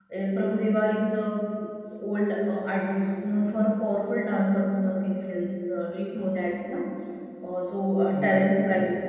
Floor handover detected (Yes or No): No